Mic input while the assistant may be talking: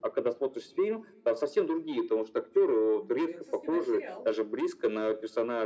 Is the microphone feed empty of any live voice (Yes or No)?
No